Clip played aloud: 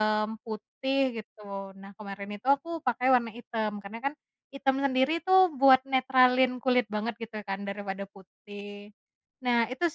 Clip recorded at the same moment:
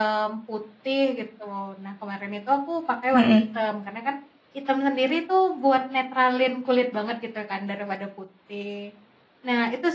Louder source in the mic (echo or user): user